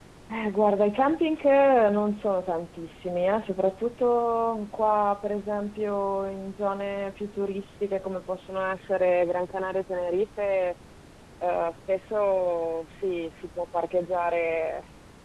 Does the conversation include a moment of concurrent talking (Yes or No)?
No